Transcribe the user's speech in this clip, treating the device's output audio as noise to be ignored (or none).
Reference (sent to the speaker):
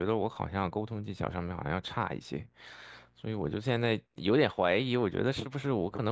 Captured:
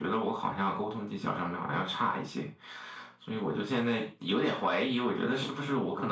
none